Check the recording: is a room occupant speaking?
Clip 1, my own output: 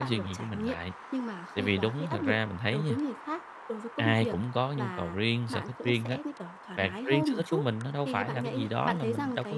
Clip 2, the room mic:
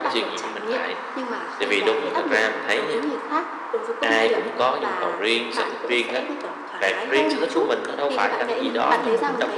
Yes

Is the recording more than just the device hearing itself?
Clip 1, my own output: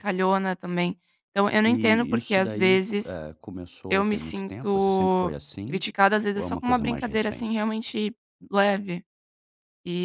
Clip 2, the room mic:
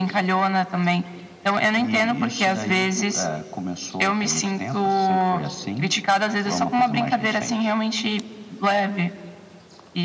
No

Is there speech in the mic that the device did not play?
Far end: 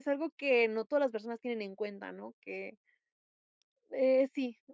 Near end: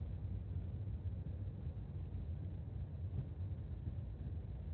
No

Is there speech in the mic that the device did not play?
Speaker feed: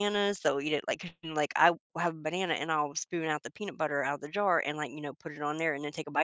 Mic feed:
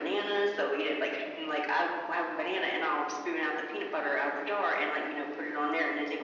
No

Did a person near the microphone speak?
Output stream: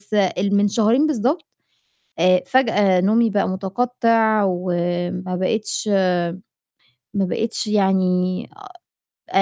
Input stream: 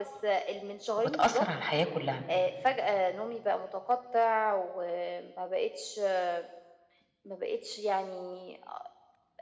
Yes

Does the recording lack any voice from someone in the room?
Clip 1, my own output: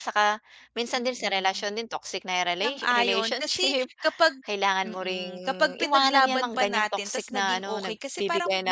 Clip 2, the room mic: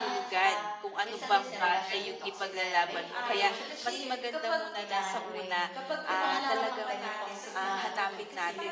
No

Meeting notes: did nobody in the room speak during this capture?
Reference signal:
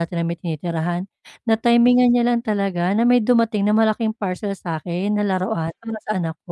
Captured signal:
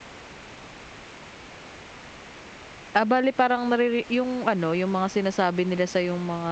No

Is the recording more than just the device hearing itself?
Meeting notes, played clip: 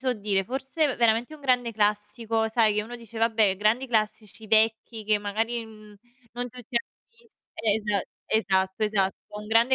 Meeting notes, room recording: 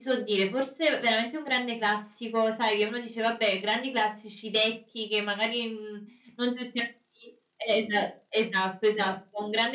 No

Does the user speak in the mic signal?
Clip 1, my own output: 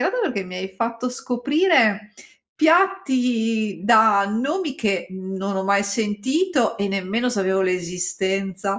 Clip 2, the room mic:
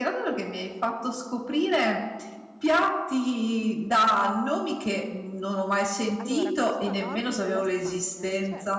Yes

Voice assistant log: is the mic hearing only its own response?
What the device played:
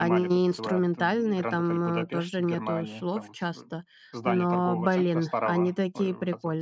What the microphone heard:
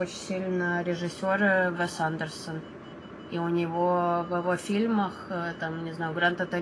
No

